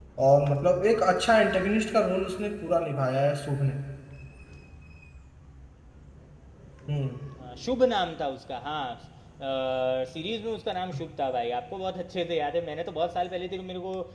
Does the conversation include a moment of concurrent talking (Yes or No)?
No